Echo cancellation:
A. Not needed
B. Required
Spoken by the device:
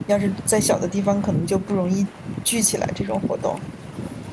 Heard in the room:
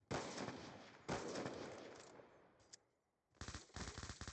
A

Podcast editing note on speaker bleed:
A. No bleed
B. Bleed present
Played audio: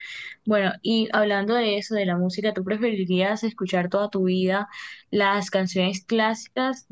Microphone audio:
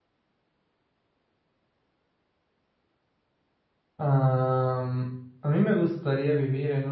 A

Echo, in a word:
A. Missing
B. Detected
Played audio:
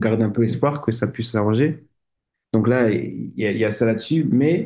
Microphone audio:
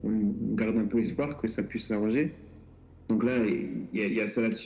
B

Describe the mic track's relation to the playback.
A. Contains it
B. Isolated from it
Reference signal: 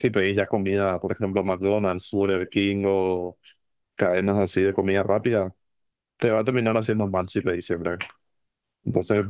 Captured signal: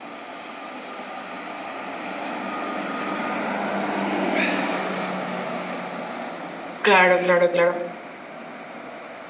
B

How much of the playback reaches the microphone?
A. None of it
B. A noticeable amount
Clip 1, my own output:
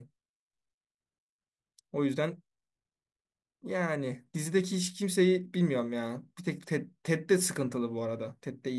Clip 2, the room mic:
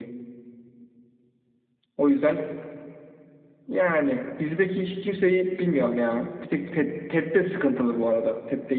B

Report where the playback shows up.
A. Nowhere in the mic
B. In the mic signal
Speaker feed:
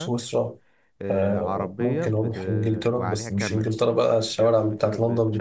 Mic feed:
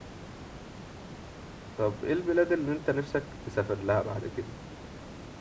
A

